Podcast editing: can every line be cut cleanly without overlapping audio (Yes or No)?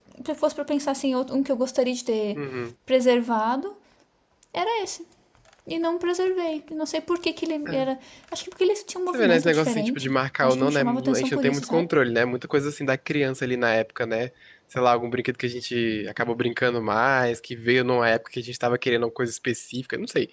No